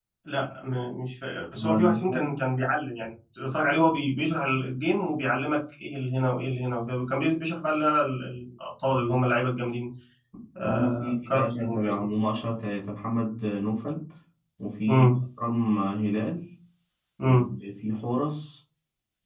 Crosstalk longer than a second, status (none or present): present